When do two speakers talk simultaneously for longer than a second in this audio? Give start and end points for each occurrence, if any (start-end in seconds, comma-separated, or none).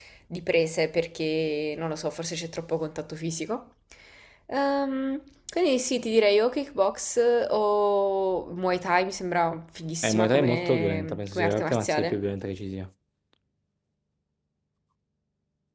10.0-12.2